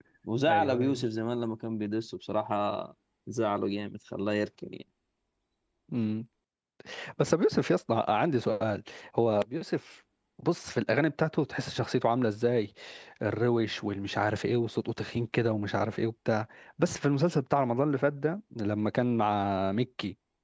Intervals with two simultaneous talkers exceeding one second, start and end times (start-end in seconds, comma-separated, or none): none